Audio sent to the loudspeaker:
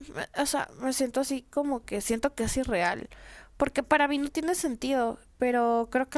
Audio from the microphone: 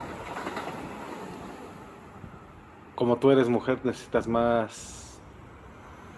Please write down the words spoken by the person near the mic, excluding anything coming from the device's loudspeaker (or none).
como tú eres mujer, necesitas más,